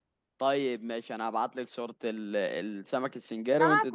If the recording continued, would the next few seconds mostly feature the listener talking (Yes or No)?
Yes